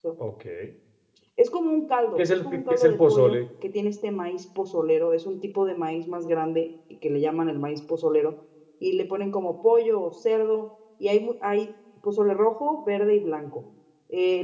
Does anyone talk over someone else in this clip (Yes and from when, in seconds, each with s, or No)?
Yes, from 2.2 s